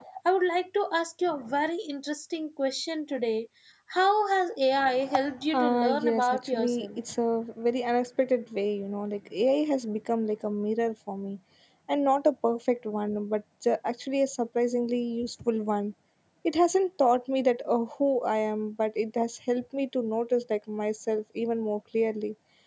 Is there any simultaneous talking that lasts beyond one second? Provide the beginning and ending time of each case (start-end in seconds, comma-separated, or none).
5.5-7.0